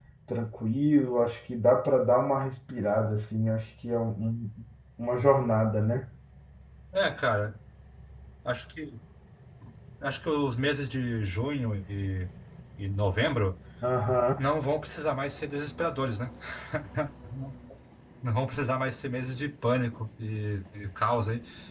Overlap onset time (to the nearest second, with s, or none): none